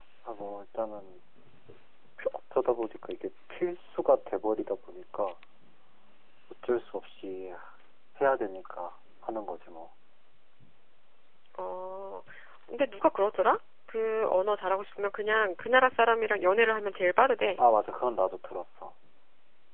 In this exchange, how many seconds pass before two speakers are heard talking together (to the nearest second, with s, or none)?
none